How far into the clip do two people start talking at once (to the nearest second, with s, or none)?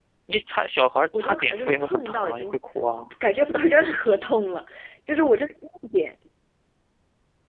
1 s